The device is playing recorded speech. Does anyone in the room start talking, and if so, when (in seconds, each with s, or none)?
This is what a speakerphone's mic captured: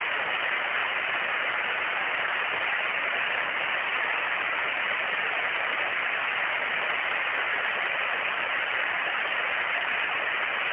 none